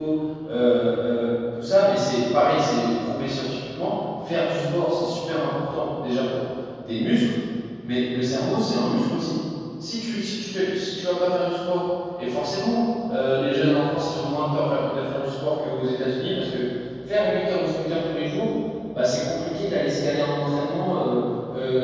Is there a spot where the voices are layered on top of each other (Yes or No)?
No